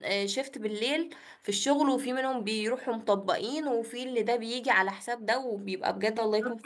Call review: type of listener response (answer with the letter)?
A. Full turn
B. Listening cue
A